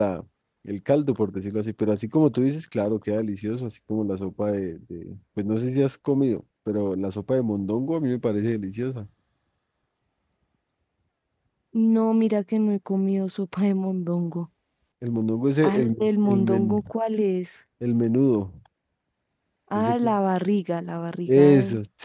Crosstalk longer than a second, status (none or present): present